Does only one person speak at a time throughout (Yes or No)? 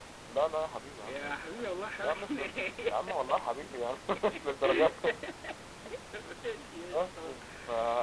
No